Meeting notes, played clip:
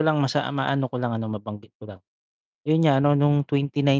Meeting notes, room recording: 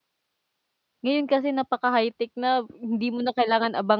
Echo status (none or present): none